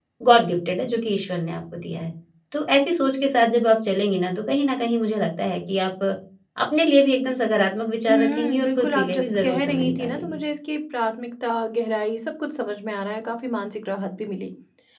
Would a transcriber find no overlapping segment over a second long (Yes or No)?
No